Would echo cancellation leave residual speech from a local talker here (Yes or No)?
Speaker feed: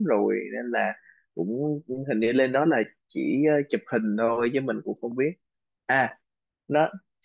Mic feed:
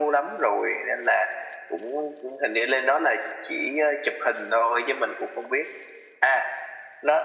No